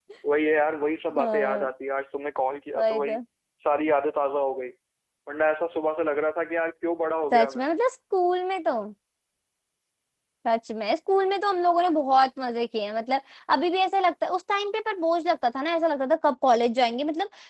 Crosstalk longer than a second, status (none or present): none